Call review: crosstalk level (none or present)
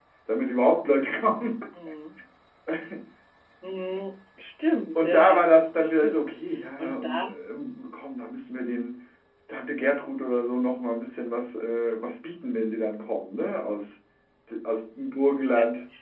present